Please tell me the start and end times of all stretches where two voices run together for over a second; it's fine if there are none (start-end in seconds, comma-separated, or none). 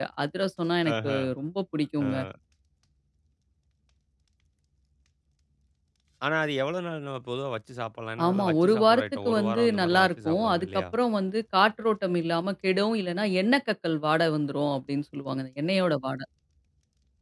8.2-10.8